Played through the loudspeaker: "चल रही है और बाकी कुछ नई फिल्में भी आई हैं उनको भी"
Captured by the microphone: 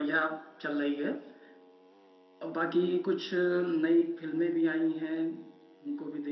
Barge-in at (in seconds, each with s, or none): none